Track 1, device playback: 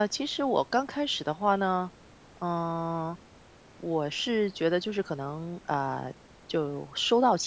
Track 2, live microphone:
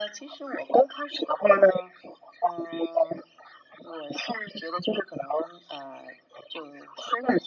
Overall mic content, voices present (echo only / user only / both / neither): echo only